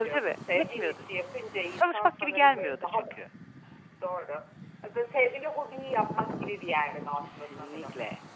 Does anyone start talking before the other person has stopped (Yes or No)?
Yes